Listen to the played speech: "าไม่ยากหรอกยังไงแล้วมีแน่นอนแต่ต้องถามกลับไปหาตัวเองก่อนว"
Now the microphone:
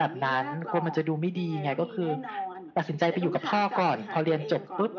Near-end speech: present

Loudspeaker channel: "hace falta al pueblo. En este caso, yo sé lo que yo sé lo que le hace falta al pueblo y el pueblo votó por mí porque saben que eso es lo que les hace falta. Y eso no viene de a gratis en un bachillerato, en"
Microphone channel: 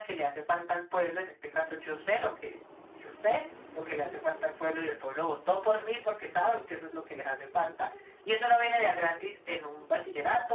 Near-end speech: none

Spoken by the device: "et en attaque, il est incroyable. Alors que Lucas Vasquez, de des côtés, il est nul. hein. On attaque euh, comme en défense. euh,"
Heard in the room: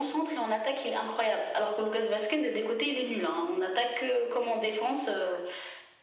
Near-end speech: none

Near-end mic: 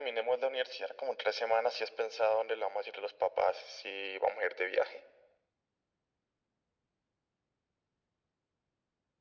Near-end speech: none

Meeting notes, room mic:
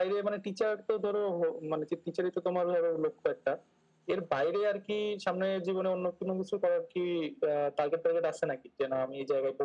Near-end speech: none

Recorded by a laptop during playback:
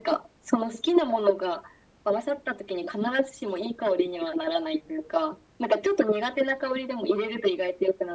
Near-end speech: none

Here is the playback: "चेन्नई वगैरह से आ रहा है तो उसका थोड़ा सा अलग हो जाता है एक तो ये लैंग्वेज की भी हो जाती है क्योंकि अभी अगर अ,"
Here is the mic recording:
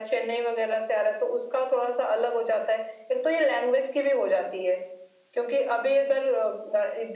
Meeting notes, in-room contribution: none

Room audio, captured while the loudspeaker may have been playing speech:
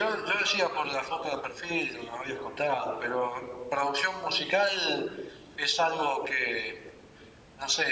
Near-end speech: none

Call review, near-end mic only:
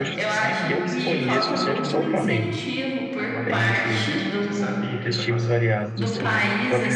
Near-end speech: present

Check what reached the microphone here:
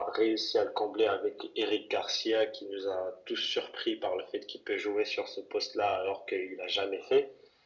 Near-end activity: none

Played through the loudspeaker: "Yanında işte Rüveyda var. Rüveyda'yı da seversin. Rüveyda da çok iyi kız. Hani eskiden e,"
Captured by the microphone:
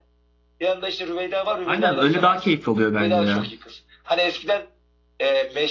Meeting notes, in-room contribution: present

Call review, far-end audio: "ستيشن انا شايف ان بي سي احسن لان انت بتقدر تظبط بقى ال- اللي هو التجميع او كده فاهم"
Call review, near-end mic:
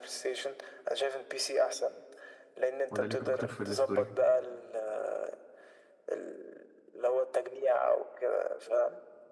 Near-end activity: present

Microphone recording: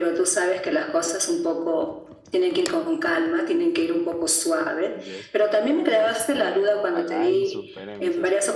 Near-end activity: present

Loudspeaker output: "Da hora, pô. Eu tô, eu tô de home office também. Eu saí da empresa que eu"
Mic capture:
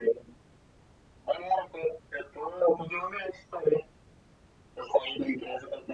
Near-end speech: none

